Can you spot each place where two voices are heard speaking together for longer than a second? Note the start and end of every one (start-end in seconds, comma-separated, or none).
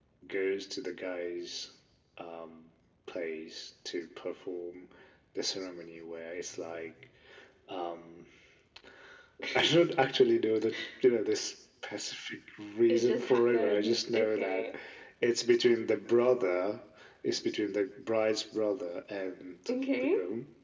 12.9-14.6